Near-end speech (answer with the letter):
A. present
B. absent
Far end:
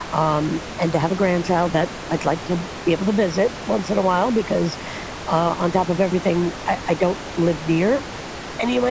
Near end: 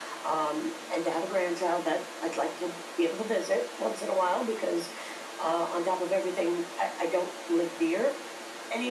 B